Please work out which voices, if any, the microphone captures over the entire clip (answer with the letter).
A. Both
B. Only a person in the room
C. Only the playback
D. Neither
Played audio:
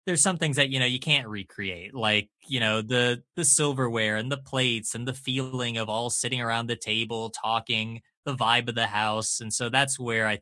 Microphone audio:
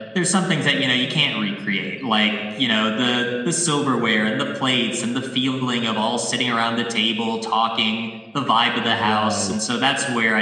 A